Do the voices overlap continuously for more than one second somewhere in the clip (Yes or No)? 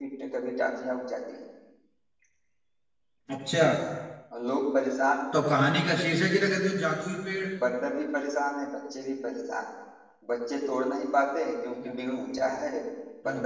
No